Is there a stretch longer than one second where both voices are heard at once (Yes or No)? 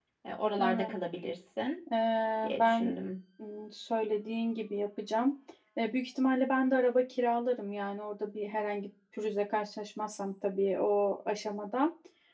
No